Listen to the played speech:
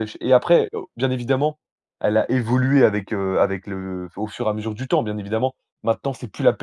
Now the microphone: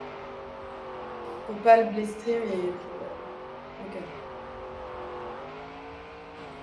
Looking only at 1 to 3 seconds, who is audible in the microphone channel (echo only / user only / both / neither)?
user only